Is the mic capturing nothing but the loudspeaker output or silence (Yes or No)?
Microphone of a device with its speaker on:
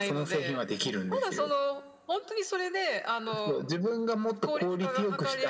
Yes